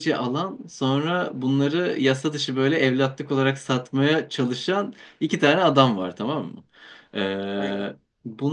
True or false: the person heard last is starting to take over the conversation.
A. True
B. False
B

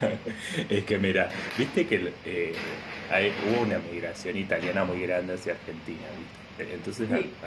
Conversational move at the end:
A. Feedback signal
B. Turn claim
A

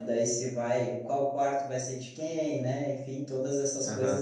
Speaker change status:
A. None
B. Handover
A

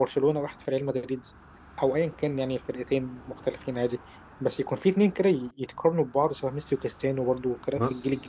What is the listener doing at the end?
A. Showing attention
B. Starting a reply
B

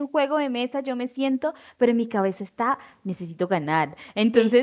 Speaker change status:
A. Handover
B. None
B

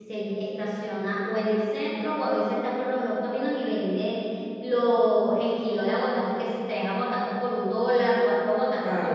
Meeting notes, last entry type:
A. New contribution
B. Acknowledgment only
A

